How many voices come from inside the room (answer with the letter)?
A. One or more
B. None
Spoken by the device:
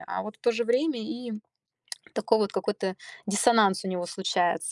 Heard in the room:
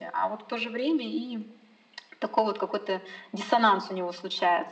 B